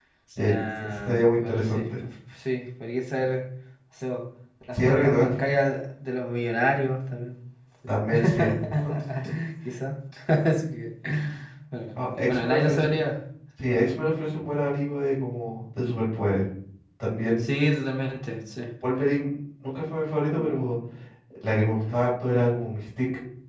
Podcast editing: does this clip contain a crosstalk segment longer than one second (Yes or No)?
Yes